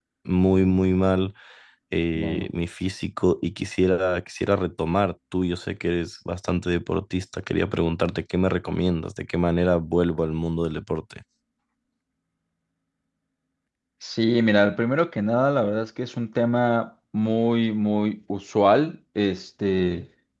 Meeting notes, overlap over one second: none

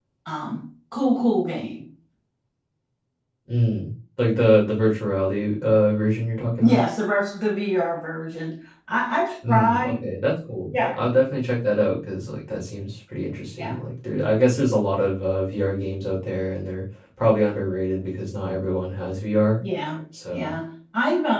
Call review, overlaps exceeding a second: none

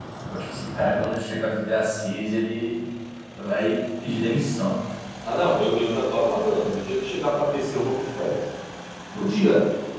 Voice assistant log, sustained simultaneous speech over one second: none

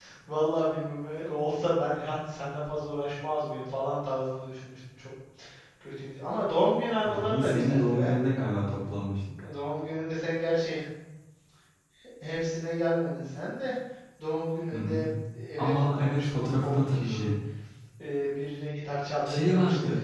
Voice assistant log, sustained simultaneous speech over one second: present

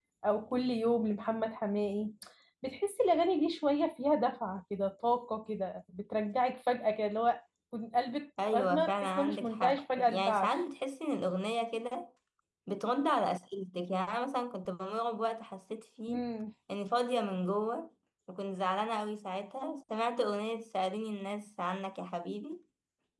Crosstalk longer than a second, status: present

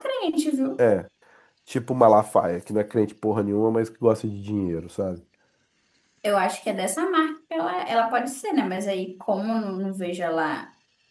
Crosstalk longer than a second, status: none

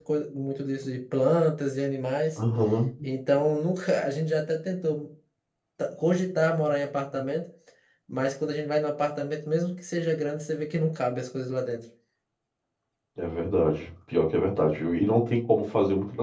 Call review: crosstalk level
none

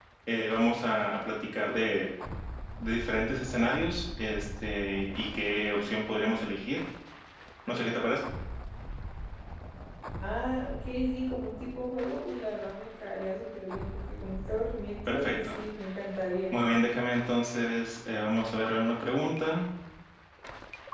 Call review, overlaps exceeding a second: none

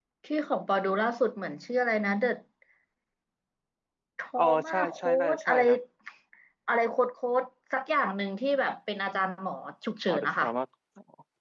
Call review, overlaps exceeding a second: present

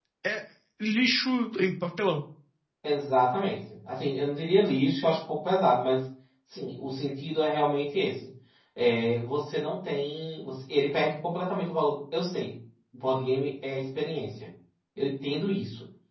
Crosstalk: none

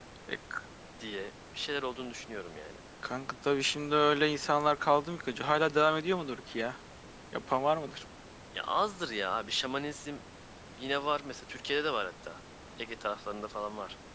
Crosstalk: none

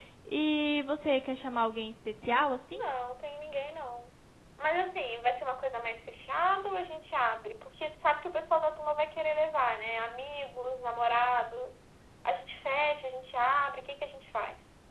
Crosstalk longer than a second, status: none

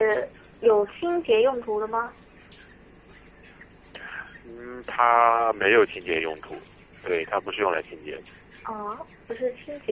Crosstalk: none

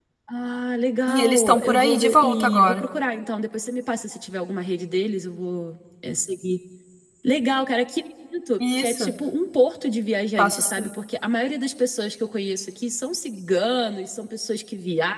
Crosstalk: present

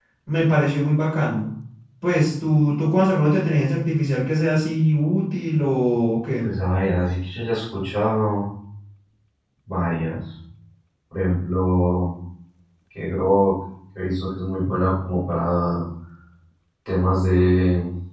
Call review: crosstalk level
none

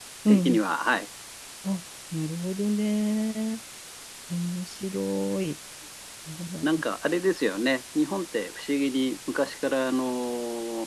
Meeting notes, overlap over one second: none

